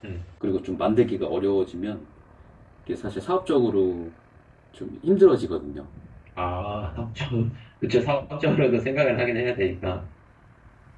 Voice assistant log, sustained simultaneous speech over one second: none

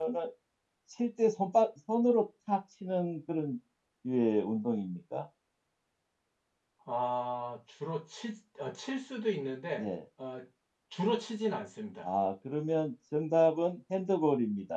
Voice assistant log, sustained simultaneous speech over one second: none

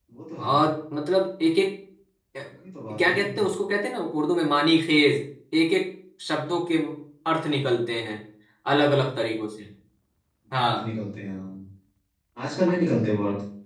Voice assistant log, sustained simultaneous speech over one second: none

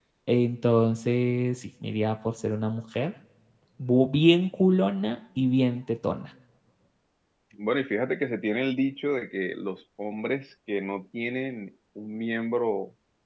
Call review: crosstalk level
none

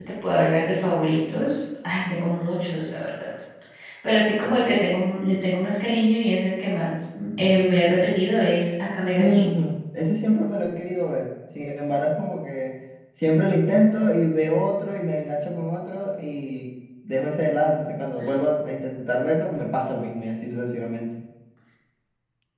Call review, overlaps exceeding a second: none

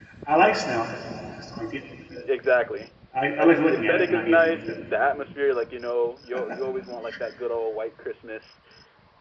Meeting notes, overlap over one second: present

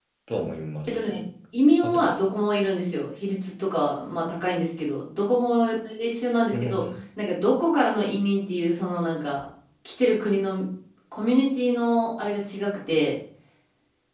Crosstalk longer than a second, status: none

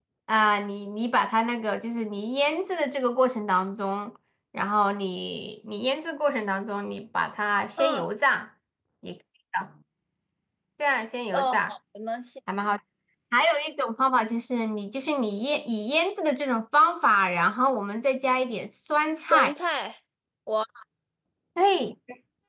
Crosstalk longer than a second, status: none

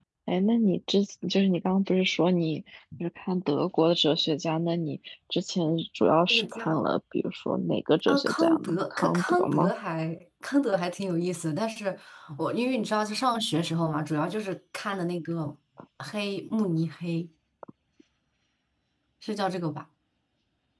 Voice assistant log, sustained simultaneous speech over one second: present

